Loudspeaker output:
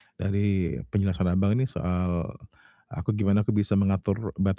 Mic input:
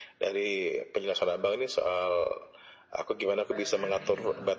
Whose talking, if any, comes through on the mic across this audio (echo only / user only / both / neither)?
both